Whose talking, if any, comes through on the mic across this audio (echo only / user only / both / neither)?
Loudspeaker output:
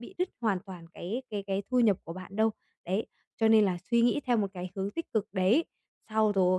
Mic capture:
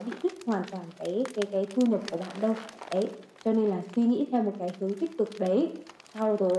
echo only